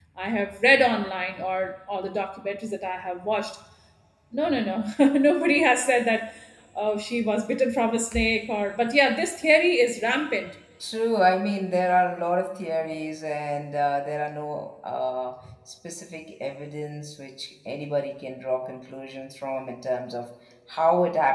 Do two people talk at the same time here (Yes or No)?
No